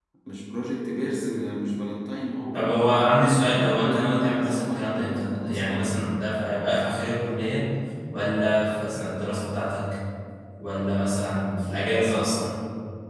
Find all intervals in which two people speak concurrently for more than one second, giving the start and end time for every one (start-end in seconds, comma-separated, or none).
2.5-5.8